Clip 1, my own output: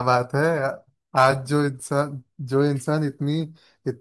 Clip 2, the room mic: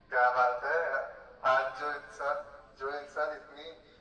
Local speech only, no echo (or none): none